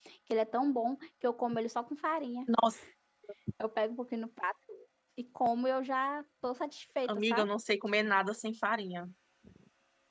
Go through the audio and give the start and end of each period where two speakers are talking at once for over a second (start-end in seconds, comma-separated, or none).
none